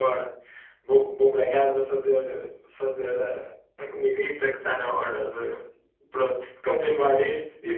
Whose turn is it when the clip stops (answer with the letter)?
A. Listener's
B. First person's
B